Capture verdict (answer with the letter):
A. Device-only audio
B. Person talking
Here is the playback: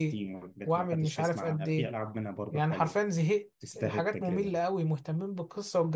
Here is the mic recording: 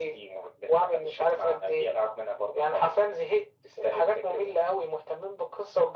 A